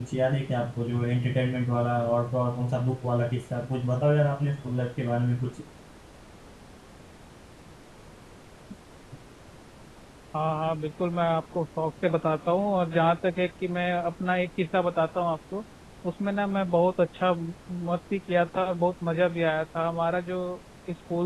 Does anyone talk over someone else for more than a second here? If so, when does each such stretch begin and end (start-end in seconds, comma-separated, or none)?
none